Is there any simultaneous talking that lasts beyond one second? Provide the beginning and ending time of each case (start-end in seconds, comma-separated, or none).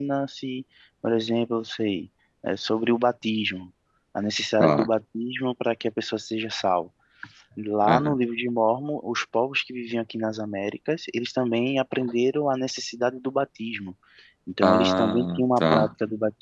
14.6-15.9